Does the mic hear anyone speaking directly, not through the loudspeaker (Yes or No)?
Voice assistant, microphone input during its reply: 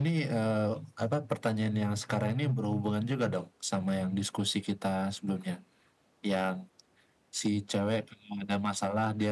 Yes